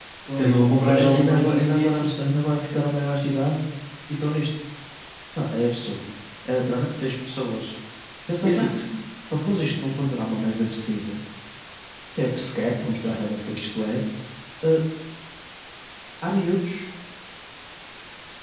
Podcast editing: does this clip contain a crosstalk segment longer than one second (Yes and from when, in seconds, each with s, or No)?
Yes, from 0.8 s